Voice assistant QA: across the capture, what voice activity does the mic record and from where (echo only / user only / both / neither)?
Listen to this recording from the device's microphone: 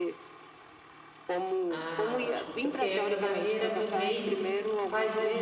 both